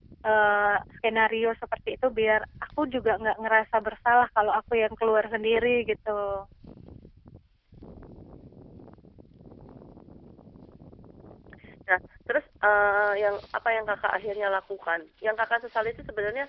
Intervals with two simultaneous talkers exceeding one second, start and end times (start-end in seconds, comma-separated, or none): none